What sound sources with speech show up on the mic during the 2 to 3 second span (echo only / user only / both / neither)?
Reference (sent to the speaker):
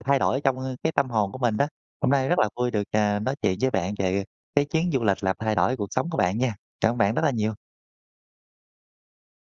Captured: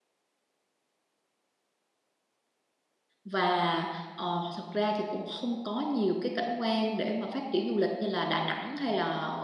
neither